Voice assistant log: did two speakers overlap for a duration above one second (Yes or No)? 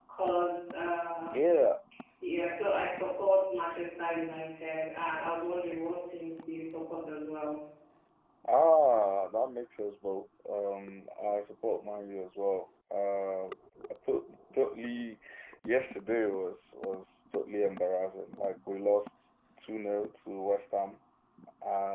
No